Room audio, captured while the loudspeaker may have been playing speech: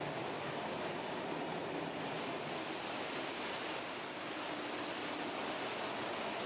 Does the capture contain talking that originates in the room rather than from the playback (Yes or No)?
No